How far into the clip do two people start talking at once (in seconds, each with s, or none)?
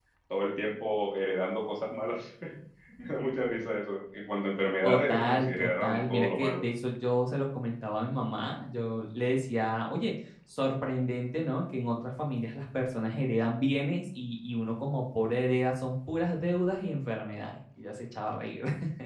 4.8 s